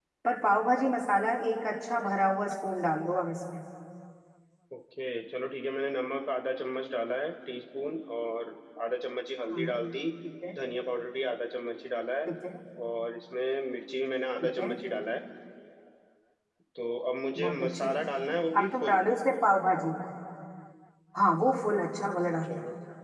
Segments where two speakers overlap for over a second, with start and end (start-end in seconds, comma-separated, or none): none